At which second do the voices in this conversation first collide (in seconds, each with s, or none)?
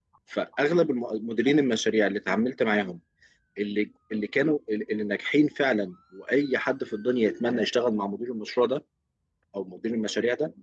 none